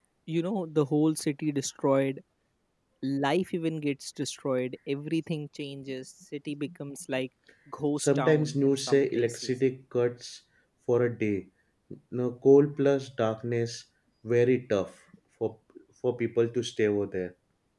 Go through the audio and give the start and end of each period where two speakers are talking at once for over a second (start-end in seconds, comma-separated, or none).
8.0-9.5